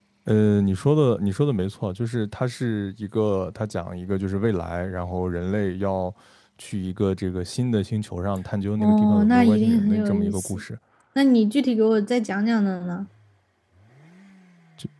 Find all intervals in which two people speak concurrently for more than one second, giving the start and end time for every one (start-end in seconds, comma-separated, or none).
8.8-10.6